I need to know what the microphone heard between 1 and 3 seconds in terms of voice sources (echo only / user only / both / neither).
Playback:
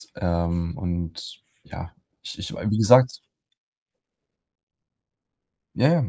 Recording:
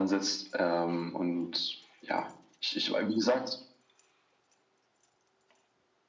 echo only